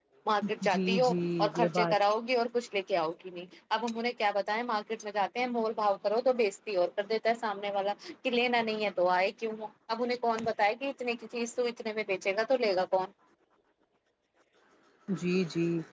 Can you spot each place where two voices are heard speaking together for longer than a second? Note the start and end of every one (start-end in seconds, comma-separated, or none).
0.6-1.9